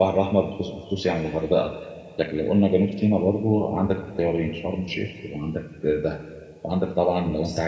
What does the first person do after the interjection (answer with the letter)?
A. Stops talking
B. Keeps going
B